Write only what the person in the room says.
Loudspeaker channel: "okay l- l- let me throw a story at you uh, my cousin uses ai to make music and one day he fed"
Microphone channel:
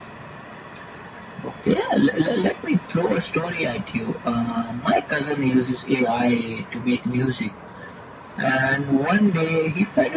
none

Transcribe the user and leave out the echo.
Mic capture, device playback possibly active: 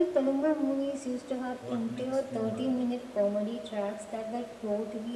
What next remark?

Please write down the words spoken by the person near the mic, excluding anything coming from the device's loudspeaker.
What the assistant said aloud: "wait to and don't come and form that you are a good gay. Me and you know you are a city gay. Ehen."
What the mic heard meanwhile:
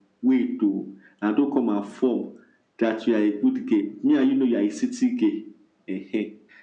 none

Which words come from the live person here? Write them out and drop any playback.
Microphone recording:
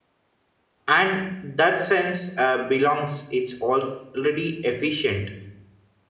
and that sense uh, belongs it's already efficient

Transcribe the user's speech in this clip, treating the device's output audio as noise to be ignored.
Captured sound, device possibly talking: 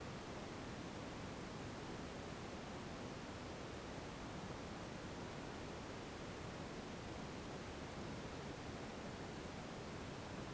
none

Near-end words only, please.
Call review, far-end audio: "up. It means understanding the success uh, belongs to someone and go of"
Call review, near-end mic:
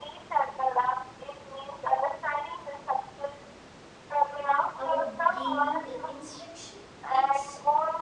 about giving a instruction it's

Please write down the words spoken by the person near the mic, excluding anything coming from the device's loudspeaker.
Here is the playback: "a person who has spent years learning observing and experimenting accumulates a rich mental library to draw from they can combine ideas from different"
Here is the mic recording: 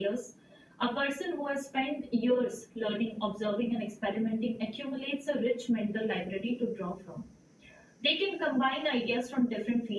none

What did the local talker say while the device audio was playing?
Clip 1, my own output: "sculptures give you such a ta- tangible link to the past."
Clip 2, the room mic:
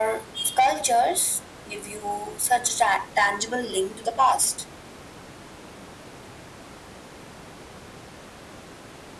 none

